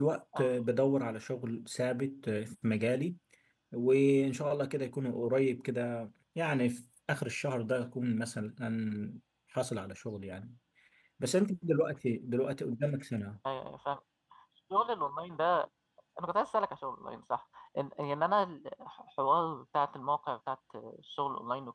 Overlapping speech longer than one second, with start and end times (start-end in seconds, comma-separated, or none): none